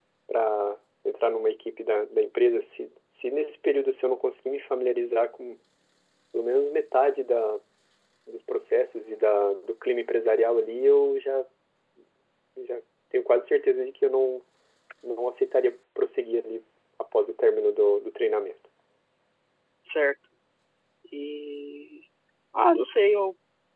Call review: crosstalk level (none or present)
none